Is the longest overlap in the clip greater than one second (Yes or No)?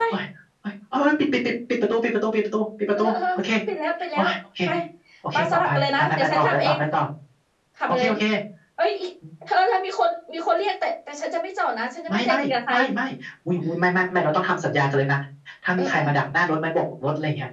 Yes